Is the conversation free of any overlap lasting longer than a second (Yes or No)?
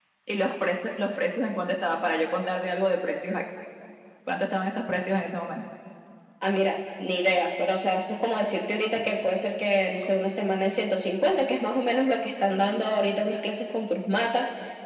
Yes